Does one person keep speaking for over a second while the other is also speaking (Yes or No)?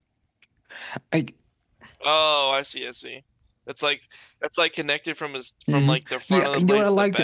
Yes